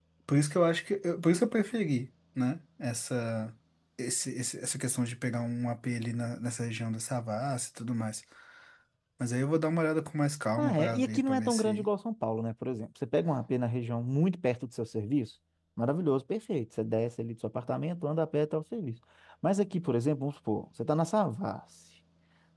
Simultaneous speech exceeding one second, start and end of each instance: 10.6-11.8

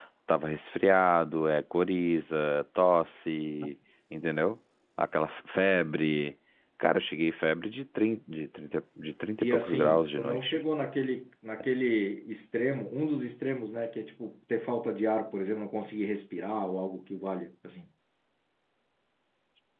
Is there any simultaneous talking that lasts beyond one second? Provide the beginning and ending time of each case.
9.4-10.6

